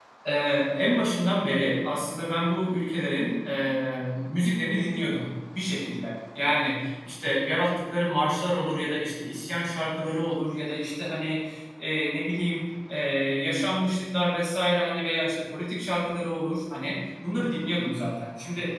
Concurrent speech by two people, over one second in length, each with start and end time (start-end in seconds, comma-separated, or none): none